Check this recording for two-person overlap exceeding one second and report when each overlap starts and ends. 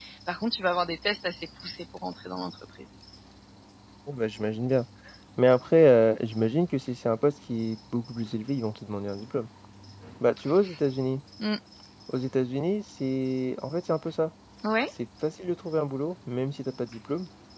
none

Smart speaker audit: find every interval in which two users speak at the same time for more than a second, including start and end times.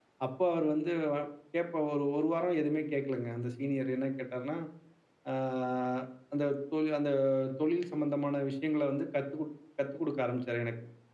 none

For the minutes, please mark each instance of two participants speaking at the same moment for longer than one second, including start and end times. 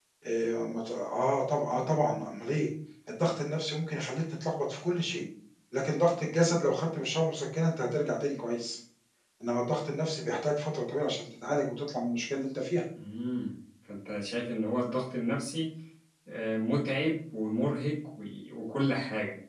none

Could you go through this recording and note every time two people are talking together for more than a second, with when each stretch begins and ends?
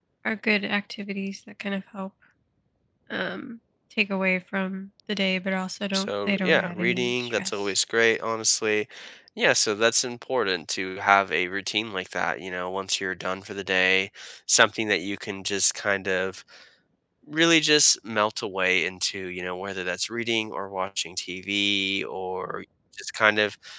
5.9-7.7

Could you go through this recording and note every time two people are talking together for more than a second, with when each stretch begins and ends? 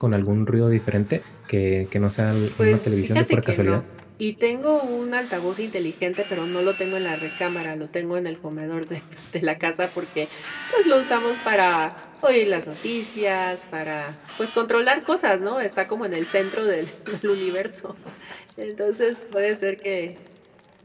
2.6-3.8

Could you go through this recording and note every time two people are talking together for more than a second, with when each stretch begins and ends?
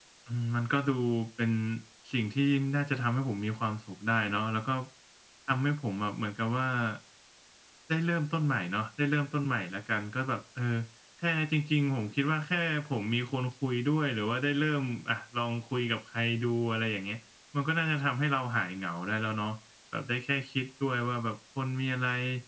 none

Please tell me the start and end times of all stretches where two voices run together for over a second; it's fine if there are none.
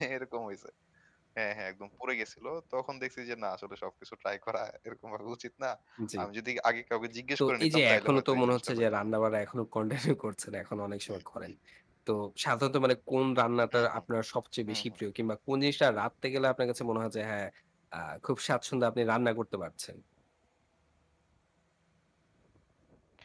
7.4-9.1

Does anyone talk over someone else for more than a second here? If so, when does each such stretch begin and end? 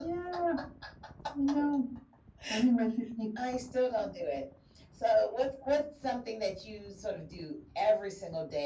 none

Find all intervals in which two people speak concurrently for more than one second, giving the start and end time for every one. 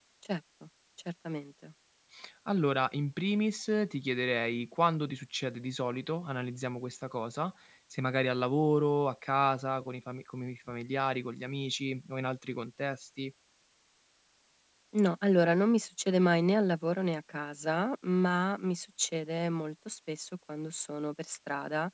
none

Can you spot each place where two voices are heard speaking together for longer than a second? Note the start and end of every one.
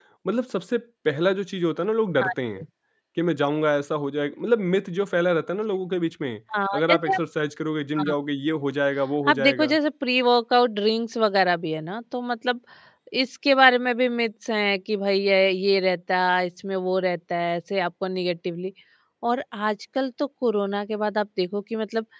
none

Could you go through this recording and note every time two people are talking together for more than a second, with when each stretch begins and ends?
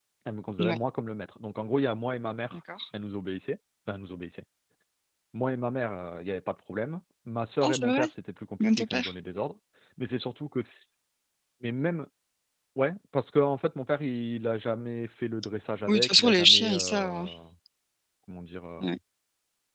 15.9-17.3

